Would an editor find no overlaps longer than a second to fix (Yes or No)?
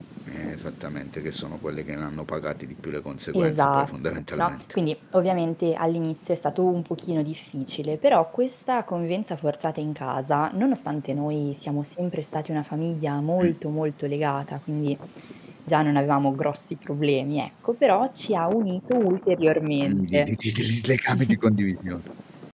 Yes